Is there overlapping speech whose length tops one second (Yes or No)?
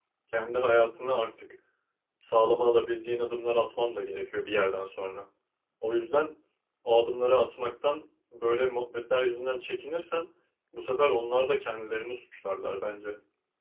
No